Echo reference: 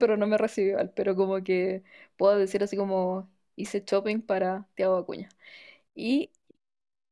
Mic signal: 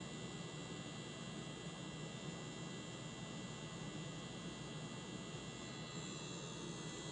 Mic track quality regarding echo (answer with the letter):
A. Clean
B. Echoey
A